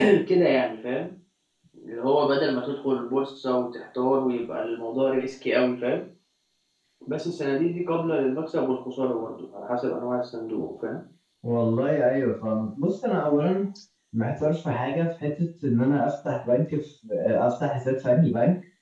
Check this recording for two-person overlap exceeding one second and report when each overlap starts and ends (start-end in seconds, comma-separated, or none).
none